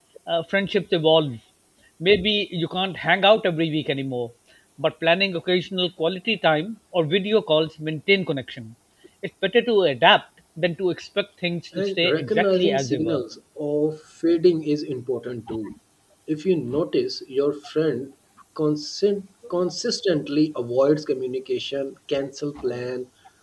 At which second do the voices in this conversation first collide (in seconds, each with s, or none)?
11.7 s